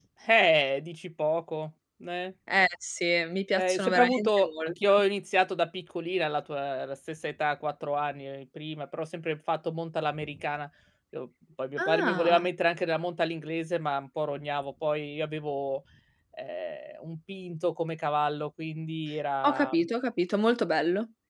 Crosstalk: present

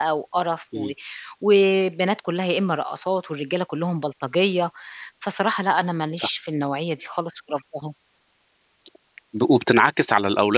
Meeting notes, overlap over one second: none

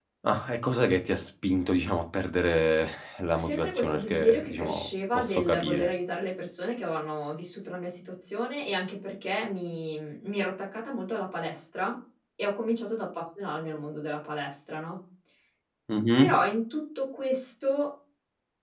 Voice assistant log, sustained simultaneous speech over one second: present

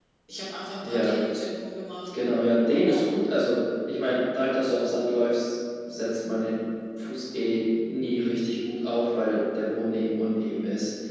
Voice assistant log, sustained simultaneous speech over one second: none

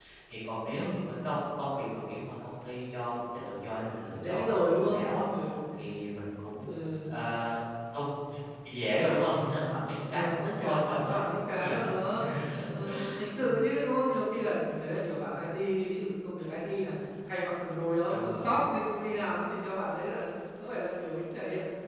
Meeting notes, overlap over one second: present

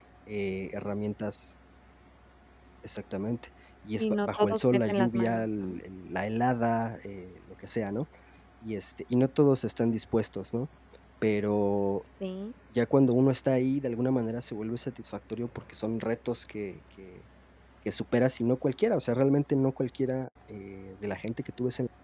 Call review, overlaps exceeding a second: present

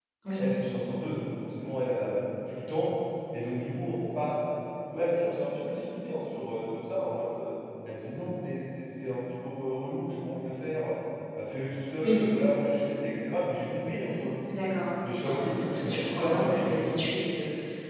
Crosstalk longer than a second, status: present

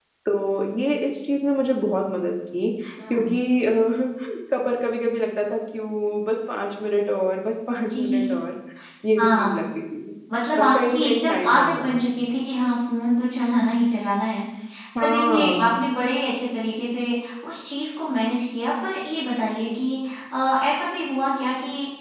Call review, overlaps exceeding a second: present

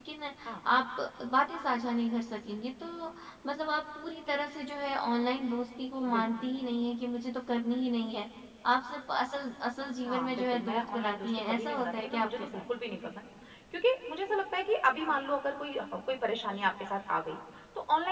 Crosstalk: present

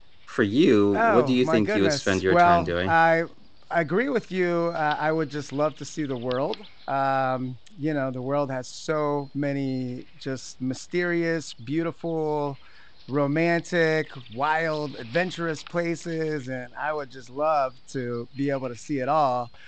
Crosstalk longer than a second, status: present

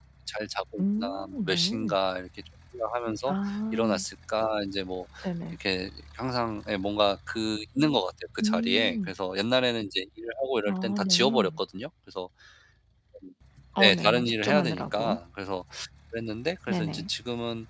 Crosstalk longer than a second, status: present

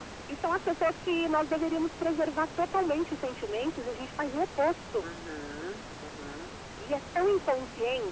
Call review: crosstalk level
none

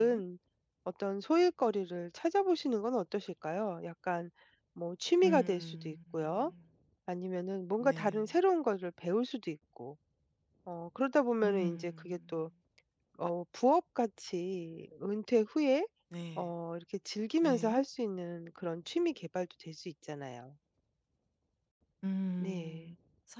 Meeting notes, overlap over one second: present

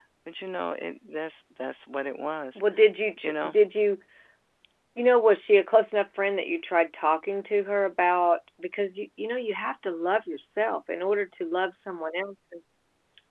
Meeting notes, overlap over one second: none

